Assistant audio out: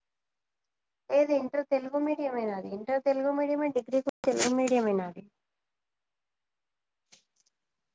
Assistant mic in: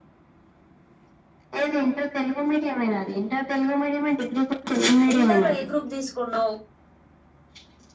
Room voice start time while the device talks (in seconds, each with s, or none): 5.1 s